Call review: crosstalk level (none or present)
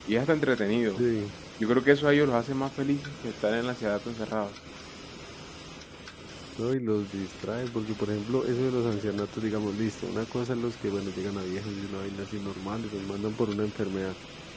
none